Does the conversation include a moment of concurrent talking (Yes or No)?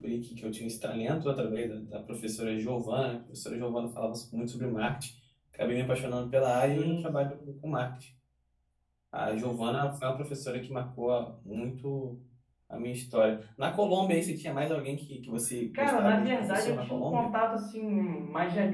Yes